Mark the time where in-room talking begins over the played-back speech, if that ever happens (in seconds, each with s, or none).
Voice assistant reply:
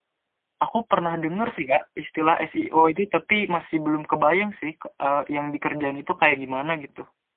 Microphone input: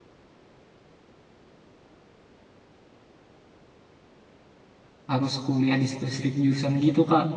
5.1 s